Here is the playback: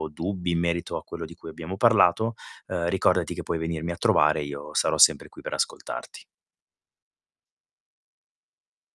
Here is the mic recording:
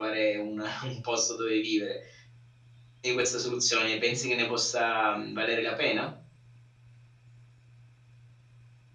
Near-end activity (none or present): present